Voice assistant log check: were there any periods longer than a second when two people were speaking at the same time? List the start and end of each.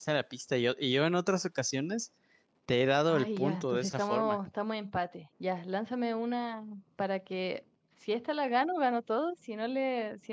3.1-4.4

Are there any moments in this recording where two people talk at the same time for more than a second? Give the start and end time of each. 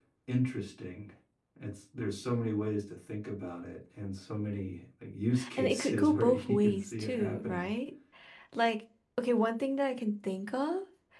5.6-7.7

